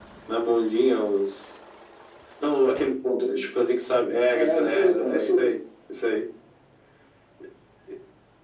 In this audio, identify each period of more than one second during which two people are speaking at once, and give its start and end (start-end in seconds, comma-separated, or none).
4.3-5.6